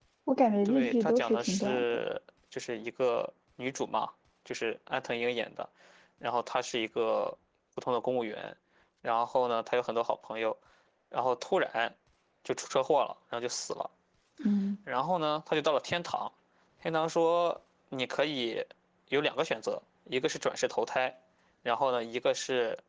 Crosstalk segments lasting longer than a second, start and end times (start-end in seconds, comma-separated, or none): 0.6-2.0